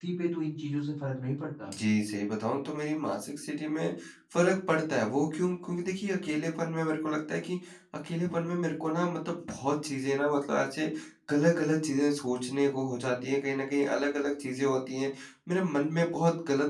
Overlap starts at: none

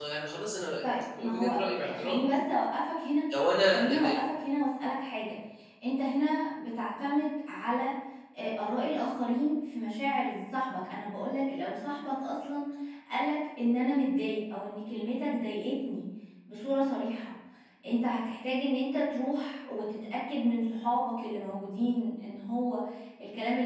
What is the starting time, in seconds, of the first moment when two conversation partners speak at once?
0.8 s

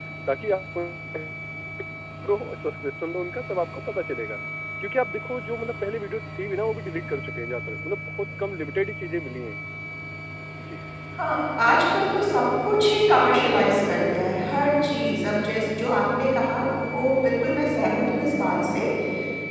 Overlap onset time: none

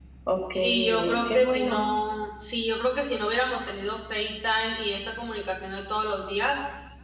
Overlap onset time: 0.5 s

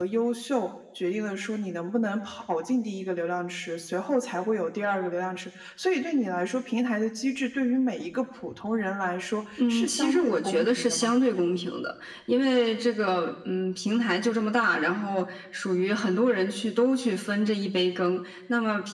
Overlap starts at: 9.6 s

